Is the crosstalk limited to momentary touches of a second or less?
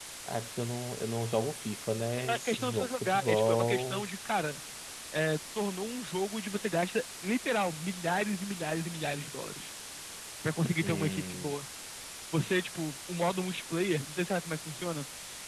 No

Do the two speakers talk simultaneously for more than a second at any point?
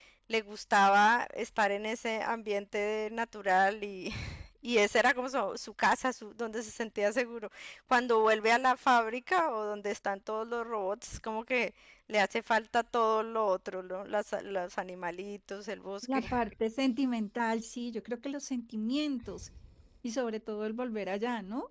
No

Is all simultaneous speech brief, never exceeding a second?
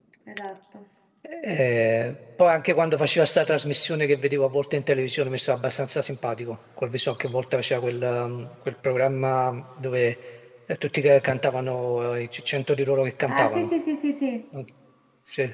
Yes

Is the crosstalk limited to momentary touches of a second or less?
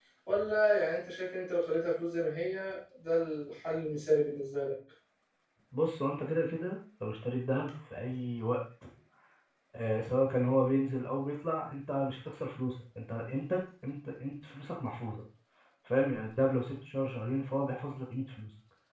Yes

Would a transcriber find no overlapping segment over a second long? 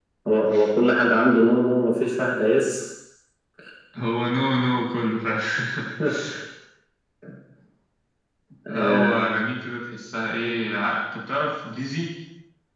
Yes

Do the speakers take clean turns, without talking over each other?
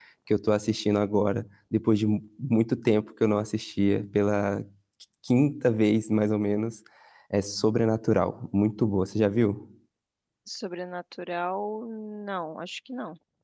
Yes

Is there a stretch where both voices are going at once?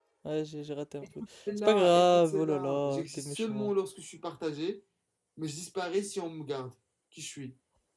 Yes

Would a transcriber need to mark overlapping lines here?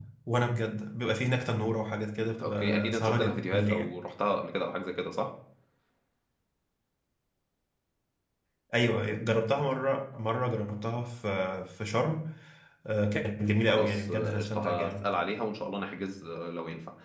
Yes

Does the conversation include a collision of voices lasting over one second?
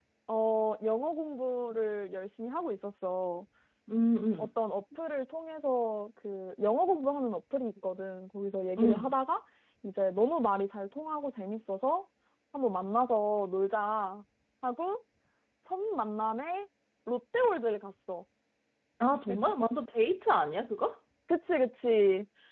No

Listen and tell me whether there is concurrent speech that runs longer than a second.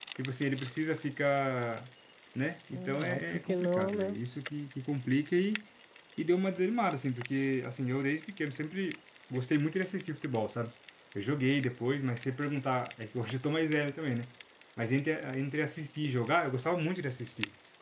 Yes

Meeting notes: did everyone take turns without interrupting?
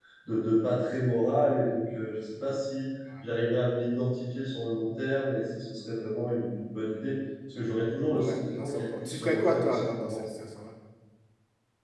No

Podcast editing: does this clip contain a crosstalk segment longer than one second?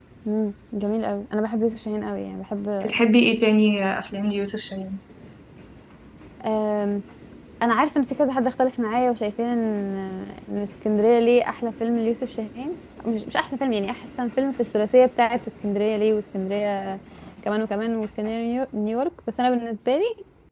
No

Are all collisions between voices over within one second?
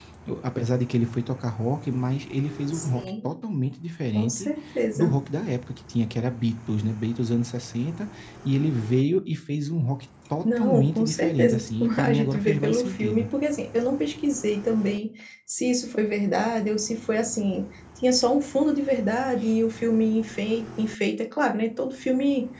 No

